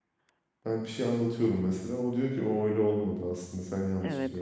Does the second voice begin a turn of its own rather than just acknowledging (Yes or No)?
Yes